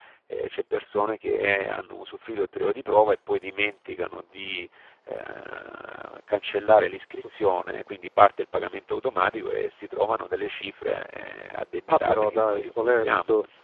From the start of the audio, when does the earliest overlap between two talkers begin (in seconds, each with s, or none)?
11.9 s